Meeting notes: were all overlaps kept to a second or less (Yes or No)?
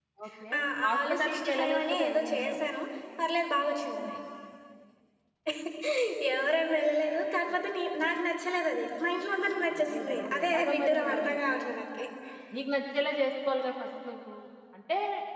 No